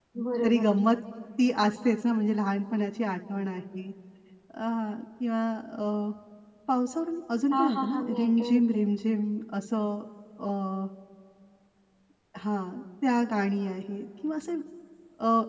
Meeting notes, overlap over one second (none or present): present